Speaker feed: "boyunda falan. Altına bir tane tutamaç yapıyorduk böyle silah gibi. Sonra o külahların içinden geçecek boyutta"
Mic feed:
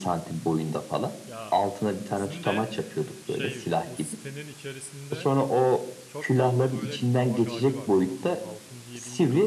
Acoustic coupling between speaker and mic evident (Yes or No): Yes